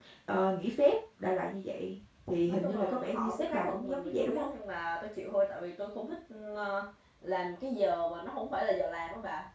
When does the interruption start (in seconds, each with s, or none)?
2.5 s